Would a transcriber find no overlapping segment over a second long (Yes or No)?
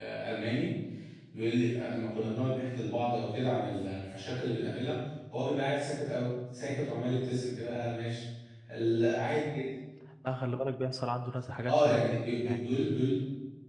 No